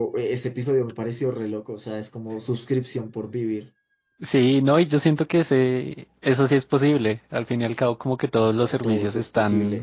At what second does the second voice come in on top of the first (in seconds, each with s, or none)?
8.6 s